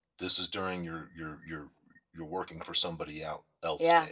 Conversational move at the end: taking over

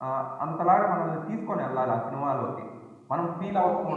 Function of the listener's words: taking over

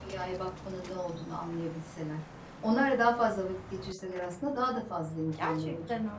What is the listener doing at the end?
taking over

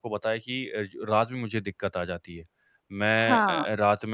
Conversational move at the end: listening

